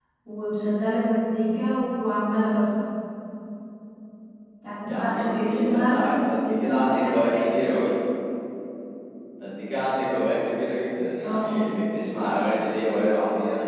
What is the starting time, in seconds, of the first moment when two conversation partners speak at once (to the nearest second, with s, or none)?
5 s